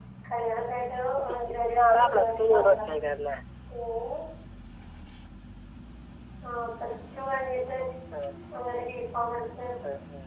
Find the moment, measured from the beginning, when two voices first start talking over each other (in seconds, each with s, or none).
1.3 s